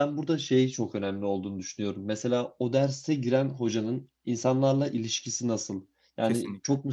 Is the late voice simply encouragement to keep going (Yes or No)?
Yes